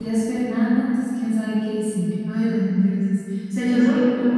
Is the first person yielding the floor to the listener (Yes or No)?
No